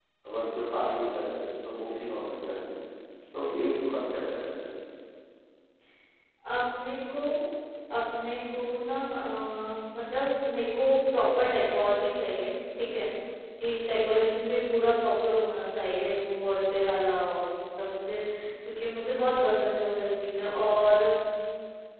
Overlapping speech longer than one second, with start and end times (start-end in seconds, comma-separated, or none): none